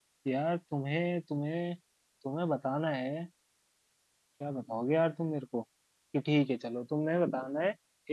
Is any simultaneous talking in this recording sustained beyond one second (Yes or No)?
No